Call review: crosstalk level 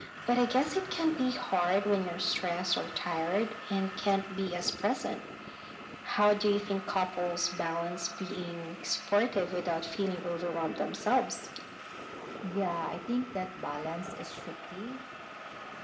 none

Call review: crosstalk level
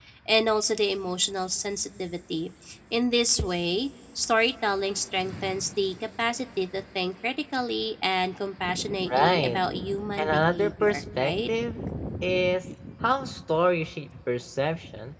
present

